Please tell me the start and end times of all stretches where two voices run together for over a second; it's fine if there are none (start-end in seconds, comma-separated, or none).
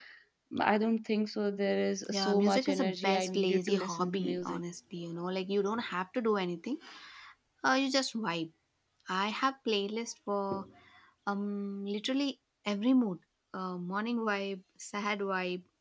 2.1-4.6